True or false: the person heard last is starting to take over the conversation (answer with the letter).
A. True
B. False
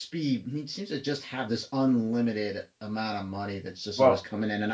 B